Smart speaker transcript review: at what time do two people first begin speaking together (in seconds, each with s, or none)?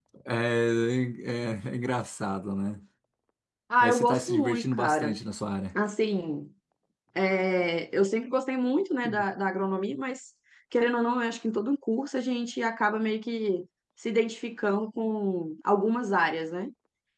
3.8 s